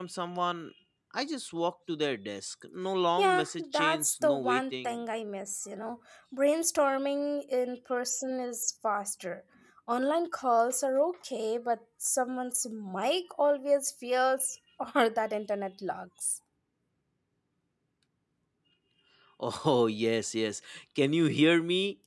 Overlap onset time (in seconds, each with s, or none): 3.2 s